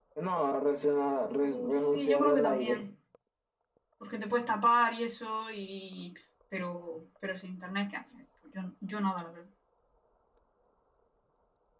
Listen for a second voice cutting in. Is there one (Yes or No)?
Yes